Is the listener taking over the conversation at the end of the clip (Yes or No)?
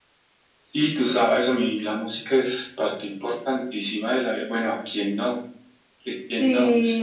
Yes